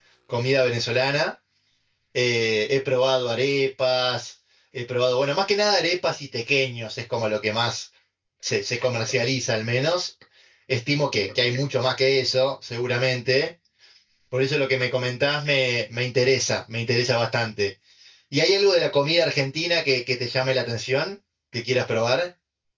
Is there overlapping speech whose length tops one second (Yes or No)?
No